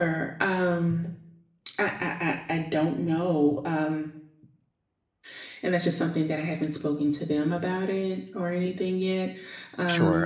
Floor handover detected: Yes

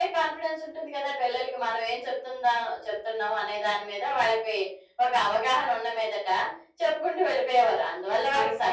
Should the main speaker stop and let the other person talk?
No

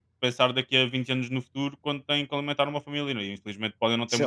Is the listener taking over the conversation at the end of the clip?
Yes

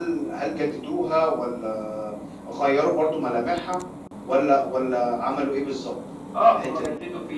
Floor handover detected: Yes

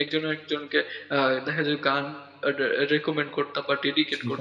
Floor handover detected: Yes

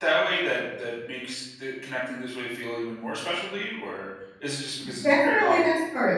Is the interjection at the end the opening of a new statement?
Yes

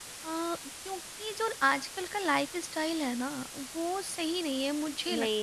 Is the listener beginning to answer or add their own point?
Yes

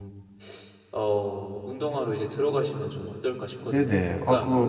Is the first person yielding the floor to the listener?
Yes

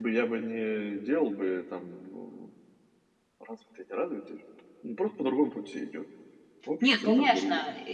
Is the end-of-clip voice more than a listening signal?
Yes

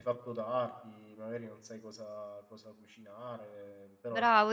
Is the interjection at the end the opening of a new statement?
Yes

